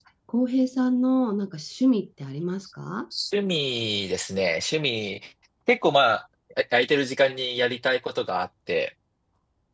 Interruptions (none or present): none